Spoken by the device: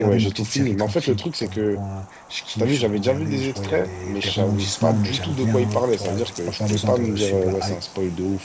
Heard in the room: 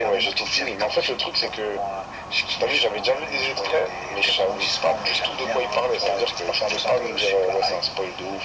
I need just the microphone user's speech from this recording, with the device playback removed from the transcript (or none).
none